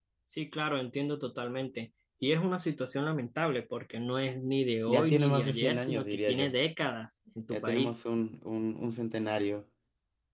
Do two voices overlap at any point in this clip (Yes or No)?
Yes